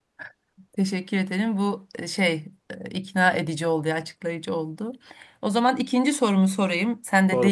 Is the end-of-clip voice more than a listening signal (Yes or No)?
No